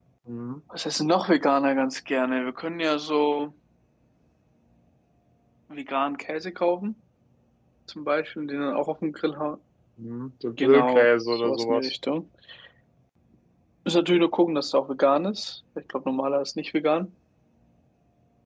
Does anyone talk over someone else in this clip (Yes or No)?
Yes